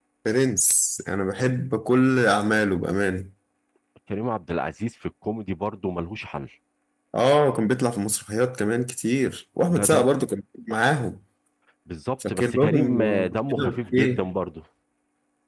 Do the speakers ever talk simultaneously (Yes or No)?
Yes